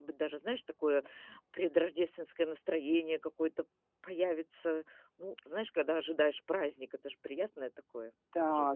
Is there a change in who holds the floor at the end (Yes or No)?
Yes